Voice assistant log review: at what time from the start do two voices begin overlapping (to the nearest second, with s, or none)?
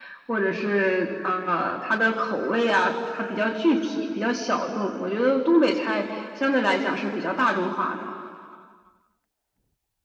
none